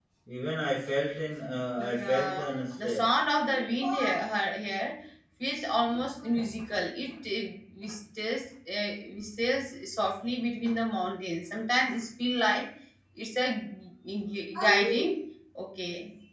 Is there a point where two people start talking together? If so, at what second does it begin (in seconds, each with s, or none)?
1.8 s